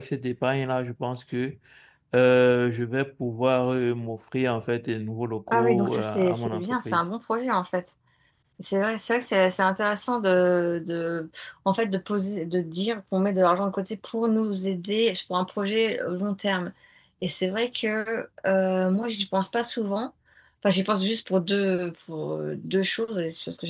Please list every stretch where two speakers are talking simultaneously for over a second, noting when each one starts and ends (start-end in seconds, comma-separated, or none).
5.5-7.0